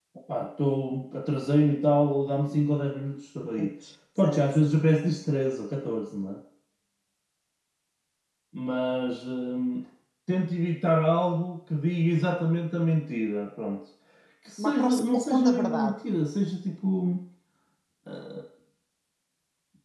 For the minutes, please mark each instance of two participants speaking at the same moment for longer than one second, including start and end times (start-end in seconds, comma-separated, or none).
14.6-15.9